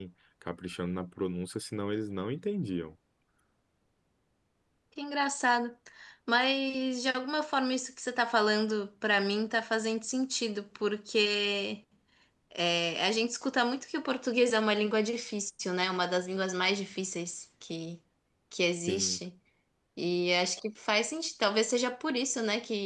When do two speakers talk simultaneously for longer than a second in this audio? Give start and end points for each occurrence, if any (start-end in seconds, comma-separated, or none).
none